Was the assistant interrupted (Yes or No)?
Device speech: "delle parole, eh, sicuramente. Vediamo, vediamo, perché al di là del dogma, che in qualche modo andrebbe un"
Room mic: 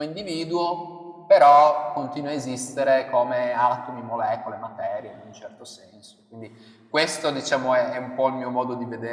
Yes